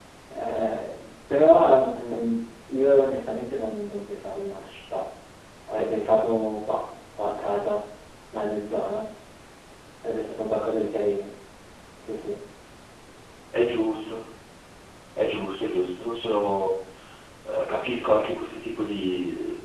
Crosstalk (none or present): none